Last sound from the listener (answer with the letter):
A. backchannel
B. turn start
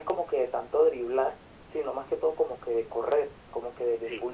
A